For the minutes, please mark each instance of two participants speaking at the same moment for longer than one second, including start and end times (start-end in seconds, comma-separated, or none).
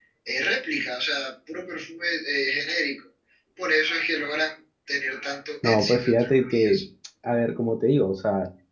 5.6-6.8